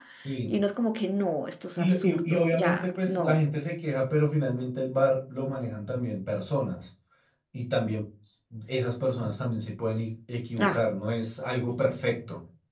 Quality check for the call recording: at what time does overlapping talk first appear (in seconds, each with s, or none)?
1.8 s